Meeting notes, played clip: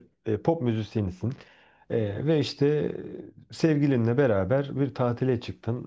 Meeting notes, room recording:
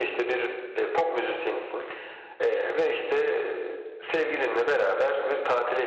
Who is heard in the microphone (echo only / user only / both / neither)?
echo only